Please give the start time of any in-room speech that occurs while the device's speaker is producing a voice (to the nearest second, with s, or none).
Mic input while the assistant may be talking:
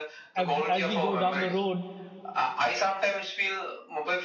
0 s